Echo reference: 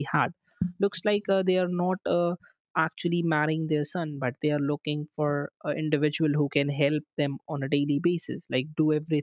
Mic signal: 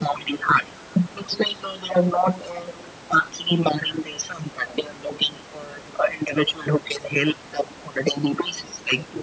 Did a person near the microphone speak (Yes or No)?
No